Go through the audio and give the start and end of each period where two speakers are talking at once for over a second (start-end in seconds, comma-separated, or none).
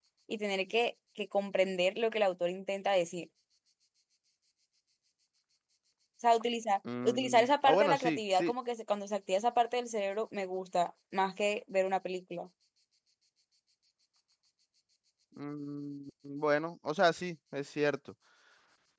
7.0-8.5